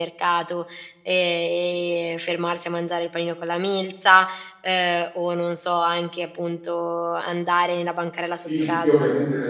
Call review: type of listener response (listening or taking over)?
taking over